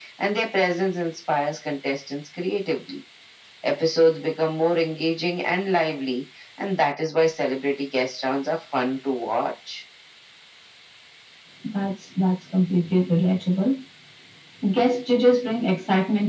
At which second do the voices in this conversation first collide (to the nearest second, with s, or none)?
none